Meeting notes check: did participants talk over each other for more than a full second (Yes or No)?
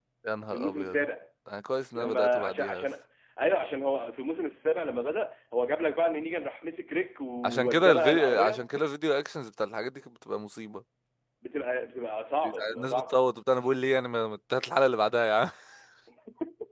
Yes